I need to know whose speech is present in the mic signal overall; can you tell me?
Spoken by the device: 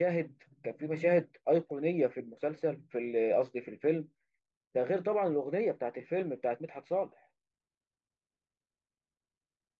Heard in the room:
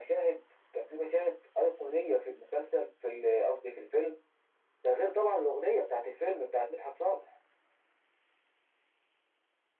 echo only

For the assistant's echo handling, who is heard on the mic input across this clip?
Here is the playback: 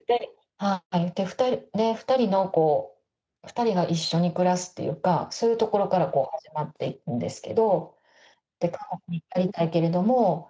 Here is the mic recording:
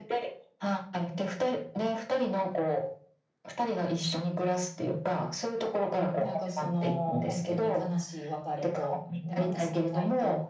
both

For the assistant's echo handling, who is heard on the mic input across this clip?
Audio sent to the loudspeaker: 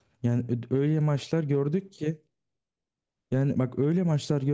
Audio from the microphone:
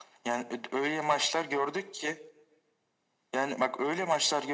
echo only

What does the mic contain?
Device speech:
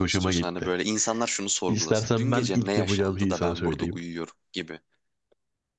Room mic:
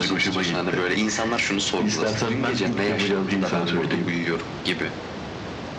echo only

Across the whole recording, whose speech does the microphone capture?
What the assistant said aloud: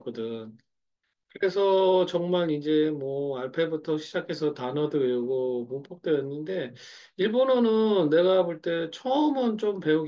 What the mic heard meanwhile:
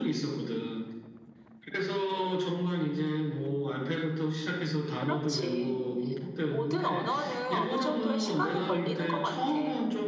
both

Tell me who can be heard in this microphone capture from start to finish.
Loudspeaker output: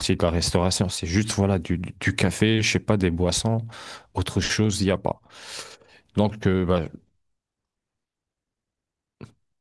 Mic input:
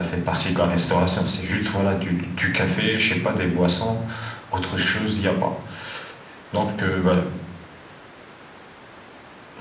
echo only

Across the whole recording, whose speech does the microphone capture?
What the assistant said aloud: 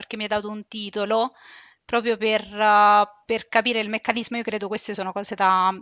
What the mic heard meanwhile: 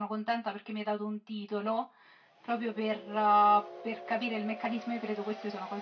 echo only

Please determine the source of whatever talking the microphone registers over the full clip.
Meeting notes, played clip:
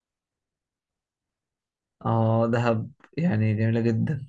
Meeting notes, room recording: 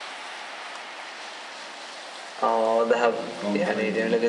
both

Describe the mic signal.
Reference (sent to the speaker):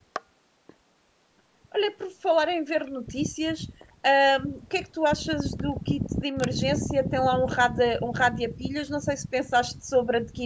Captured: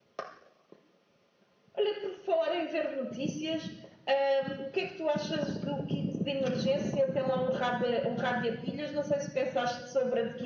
echo only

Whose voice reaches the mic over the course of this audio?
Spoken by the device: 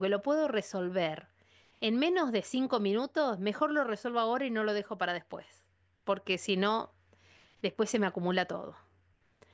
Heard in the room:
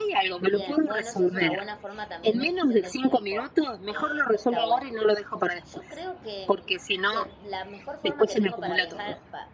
both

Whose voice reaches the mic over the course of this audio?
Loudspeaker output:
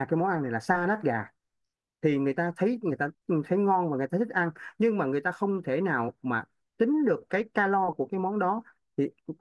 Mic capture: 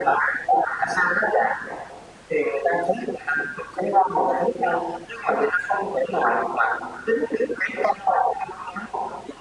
echo only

